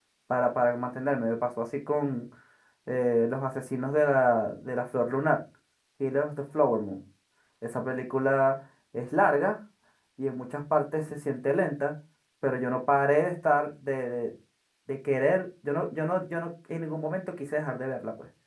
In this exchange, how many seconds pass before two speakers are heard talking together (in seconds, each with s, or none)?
none